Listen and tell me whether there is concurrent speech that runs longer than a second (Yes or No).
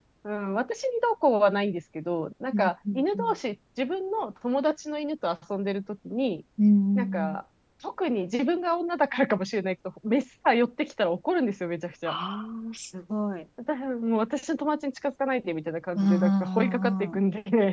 Yes